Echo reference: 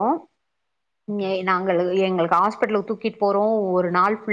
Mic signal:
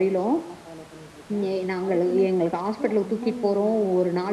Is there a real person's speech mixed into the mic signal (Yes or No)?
Yes